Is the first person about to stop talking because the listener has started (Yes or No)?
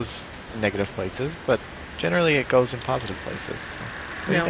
Yes